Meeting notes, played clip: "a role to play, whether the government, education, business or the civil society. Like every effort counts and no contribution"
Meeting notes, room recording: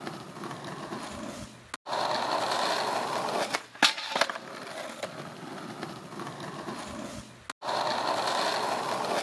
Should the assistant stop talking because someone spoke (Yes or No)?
No